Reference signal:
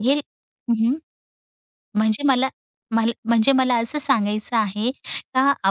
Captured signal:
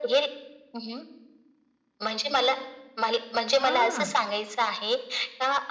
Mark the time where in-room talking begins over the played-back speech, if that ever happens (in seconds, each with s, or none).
3.6 s